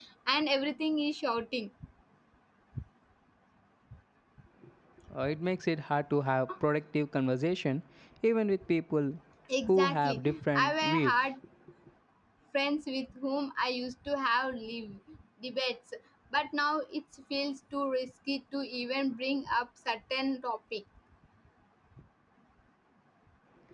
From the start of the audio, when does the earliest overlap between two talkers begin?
9.6 s

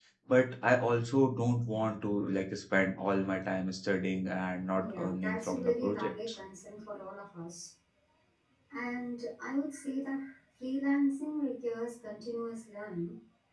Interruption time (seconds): 4.7 s

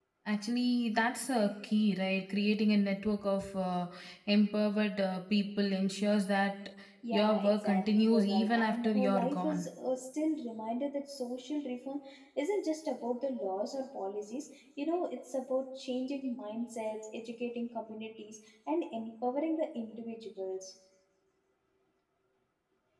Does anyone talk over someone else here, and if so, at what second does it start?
7.1 s

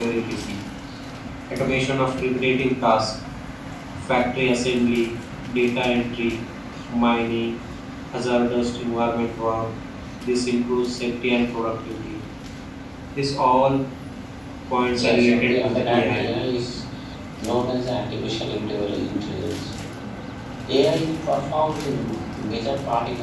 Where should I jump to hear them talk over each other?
14.9 s

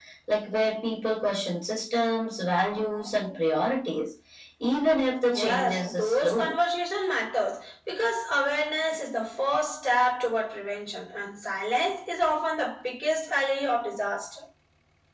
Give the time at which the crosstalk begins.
5.3 s

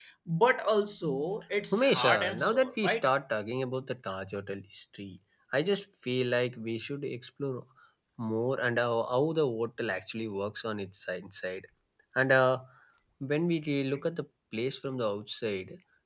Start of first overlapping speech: 1.7 s

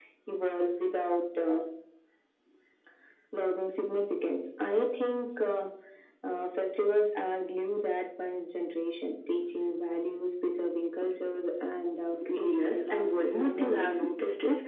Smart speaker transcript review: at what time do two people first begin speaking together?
12.2 s

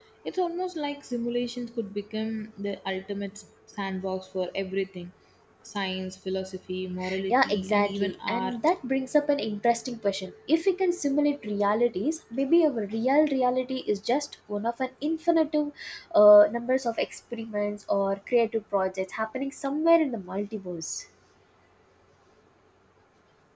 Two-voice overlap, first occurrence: 7.3 s

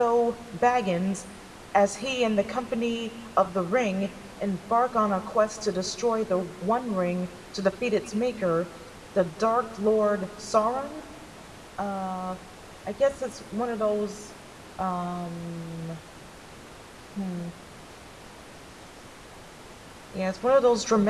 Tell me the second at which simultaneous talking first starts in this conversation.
none

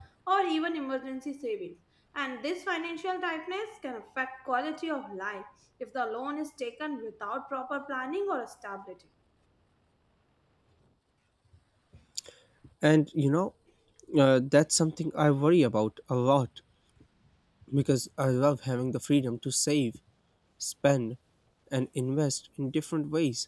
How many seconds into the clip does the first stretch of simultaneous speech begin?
none

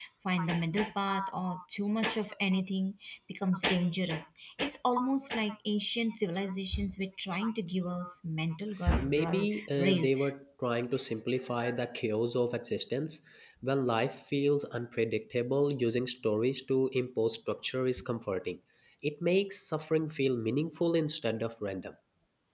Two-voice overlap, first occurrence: 8.8 s

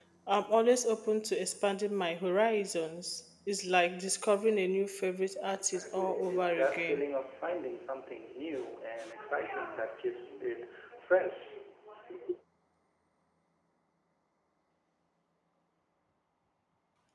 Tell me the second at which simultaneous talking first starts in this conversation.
5.6 s

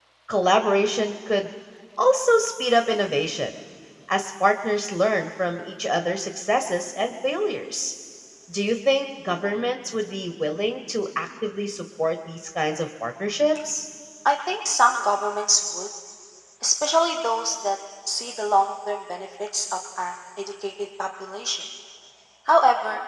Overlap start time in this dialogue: none

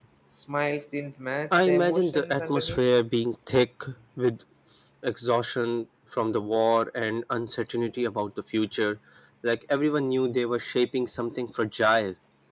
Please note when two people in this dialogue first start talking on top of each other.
1.5 s

